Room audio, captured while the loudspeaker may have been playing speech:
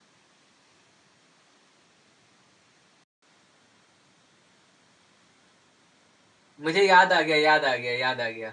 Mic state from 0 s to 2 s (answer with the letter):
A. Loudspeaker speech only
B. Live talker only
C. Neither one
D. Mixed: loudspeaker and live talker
C